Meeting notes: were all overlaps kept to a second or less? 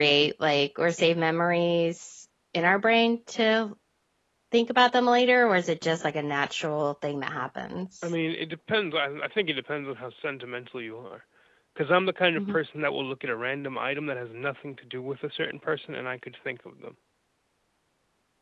Yes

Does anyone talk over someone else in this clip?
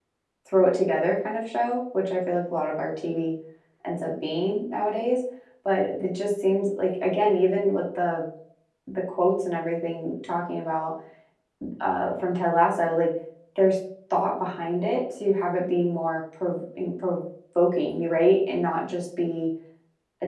No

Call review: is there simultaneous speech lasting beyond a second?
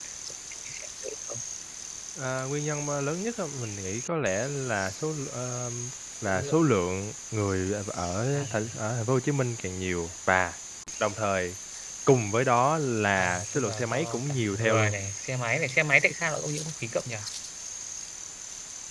Yes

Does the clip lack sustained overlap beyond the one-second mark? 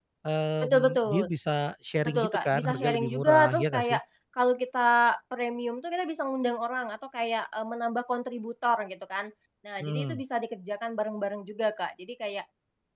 No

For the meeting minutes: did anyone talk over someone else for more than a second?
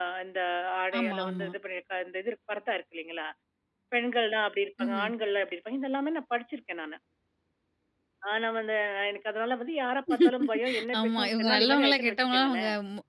Yes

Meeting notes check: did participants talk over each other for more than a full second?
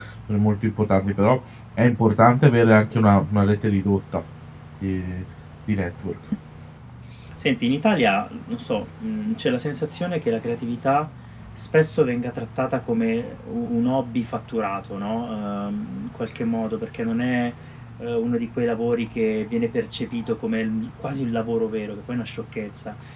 No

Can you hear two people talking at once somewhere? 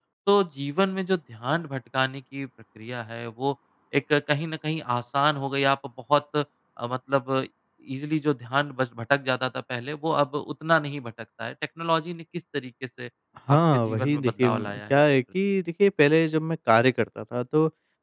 Yes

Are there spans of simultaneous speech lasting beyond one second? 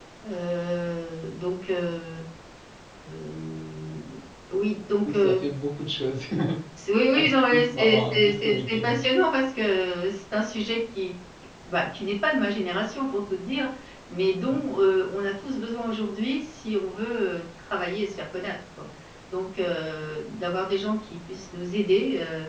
Yes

